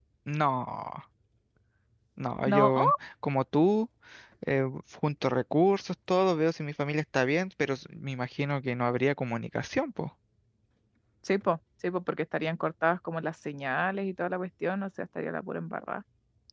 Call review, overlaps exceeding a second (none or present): none